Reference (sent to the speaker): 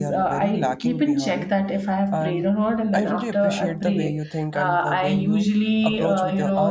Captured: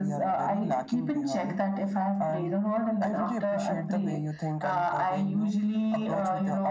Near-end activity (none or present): none